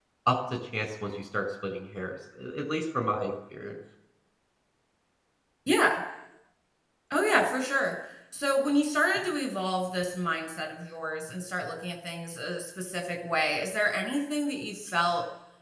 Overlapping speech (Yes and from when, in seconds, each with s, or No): No